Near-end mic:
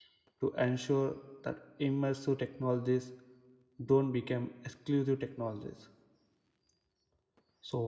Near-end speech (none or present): present